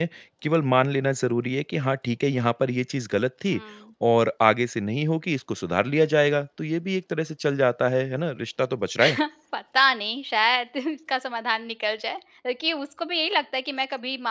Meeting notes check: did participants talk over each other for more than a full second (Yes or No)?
No